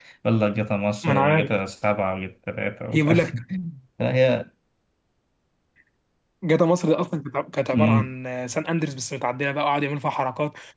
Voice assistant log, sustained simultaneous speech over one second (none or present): none